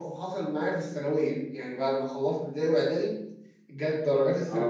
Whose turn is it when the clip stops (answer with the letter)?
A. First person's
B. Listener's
A